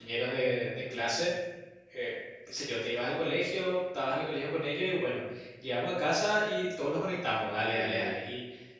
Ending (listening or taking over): listening